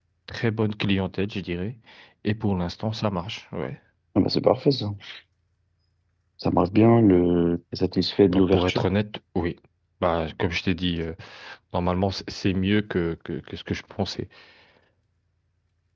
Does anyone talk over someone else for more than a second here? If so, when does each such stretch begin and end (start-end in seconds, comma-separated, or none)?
none